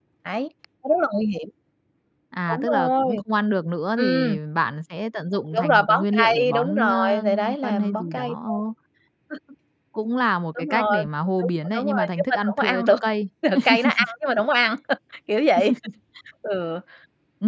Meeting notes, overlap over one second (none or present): present